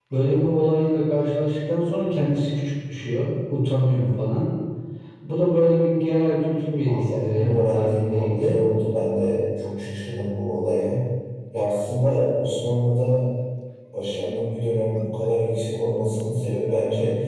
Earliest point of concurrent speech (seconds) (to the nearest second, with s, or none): 7 s